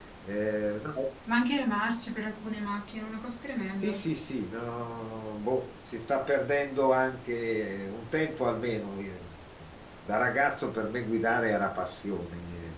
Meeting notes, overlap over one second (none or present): none